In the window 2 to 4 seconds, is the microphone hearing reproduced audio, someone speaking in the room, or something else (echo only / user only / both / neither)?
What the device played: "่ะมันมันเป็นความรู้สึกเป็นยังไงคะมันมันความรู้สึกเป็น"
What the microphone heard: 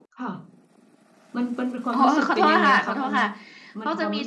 both